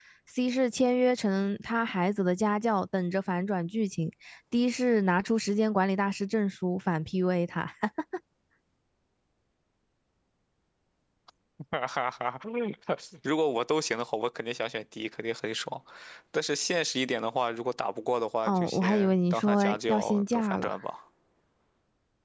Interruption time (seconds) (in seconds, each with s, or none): 18.4 s